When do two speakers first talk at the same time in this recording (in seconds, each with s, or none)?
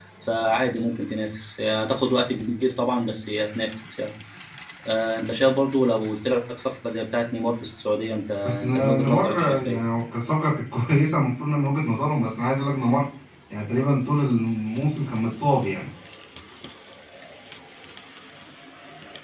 8.4 s